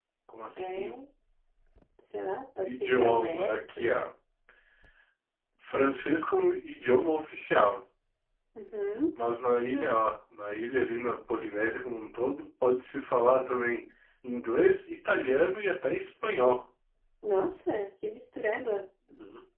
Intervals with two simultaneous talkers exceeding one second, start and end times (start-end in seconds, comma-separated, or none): 2.6-4.0